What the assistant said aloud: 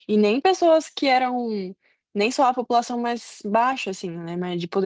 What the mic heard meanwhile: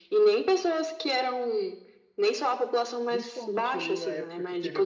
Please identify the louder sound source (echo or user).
echo